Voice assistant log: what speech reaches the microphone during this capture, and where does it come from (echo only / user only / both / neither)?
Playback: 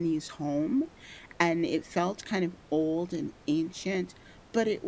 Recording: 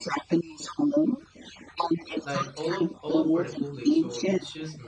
both